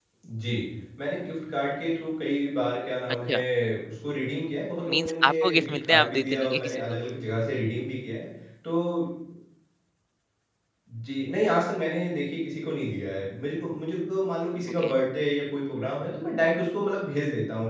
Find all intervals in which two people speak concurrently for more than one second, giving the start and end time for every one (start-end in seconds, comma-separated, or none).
4.9-7.0